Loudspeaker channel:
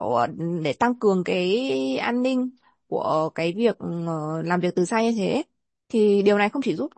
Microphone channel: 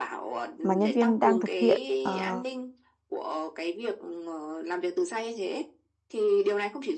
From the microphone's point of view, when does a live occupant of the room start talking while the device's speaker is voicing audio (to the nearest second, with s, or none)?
1 s